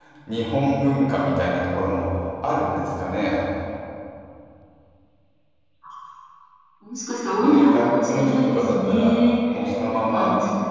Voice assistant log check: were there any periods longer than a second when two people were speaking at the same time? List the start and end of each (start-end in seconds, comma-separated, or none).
7.4-9.1